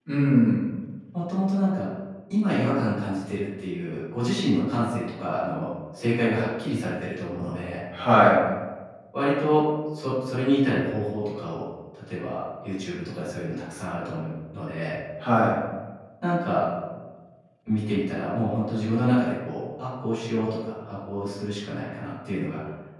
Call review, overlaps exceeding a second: none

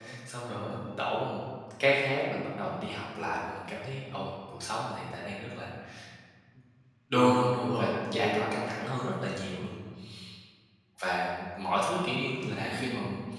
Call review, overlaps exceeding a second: present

